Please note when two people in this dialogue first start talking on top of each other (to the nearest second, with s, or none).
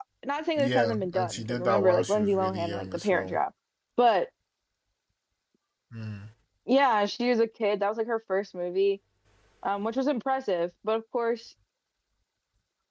1 s